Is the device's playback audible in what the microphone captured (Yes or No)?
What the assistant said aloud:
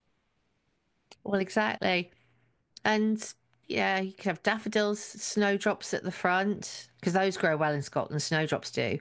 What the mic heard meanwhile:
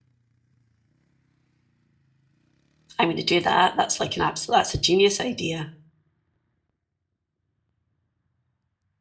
No